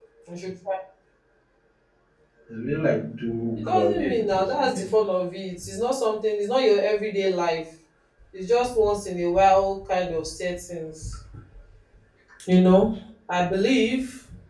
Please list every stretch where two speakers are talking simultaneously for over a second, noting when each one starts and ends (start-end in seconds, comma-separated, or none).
3.6-4.8